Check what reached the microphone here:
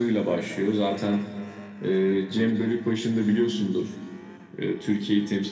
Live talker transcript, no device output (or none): none